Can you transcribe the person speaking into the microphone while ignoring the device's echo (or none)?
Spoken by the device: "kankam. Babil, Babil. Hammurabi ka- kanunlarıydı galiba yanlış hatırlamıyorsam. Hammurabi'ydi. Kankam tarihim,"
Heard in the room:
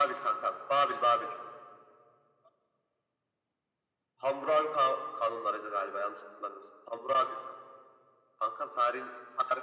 none